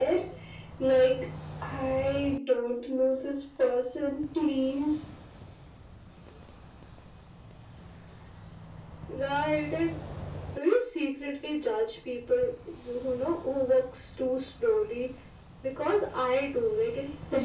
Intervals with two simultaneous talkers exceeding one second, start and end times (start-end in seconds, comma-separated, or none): none